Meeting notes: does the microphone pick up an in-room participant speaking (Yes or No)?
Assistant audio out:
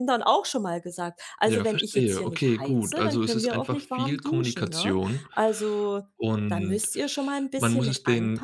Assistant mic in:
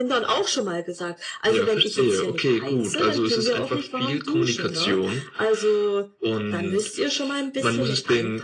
No